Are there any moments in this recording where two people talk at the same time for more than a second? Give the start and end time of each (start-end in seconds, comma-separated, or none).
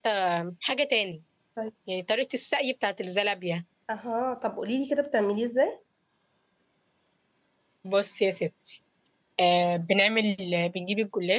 none